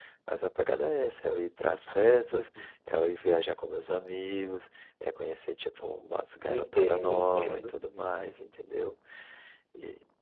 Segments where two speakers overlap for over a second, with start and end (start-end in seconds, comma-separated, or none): 6.5-7.7